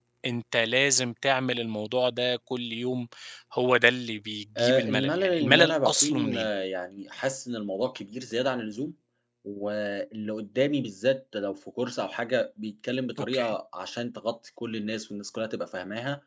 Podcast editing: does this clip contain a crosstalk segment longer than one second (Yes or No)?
Yes